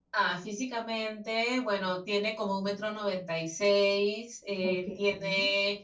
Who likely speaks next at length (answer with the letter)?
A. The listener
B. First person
B